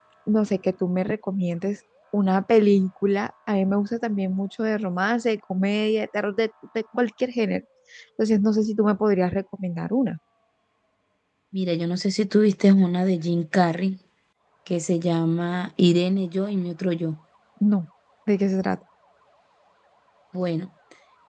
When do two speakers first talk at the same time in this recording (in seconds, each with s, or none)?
none